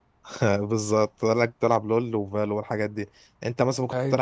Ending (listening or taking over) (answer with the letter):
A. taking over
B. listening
B